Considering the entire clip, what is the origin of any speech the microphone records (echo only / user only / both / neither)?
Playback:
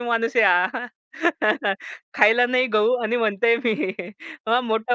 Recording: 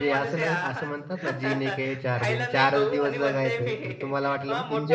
both